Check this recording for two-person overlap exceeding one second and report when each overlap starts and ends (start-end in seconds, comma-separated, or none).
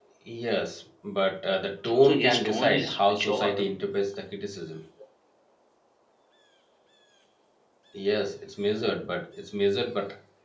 2.0-3.7